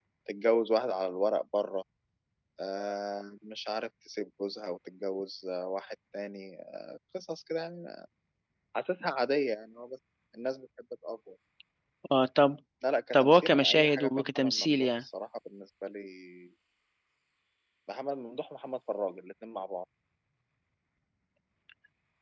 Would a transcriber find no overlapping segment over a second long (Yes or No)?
No